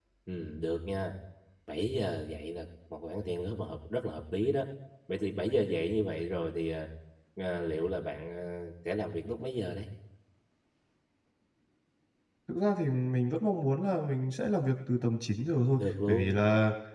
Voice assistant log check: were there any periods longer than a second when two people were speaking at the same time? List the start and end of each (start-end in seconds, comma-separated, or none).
none